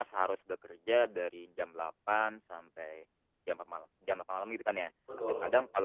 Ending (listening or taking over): listening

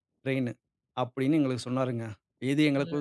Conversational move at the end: listening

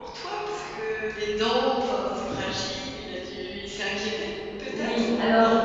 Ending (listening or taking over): taking over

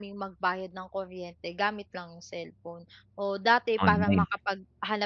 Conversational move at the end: listening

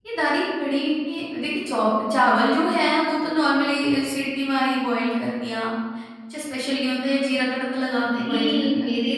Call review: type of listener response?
taking over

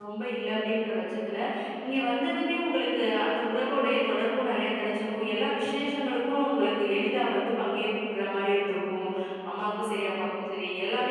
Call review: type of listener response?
listening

